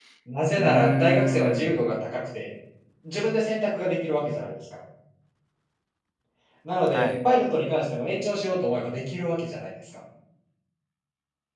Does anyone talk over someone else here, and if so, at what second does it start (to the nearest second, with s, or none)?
1 s